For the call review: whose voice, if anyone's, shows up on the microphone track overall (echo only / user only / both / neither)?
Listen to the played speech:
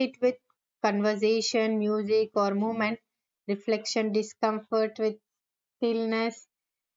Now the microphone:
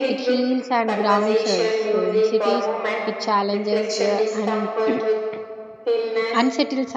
both